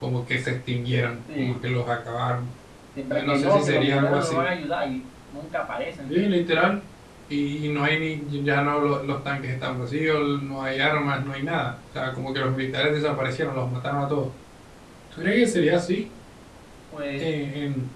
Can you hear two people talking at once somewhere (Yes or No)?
Yes